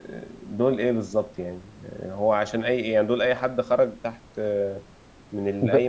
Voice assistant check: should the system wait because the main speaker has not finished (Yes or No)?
Yes